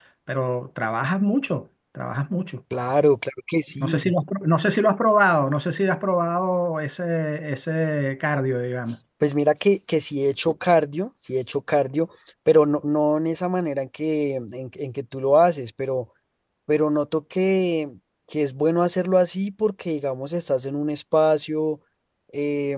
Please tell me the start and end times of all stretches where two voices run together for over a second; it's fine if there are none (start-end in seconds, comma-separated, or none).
none